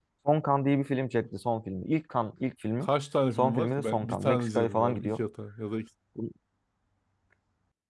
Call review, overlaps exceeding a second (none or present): present